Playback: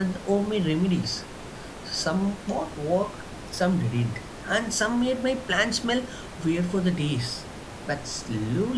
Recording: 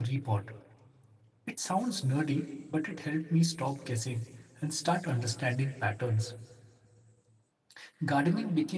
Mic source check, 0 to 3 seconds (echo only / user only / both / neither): user only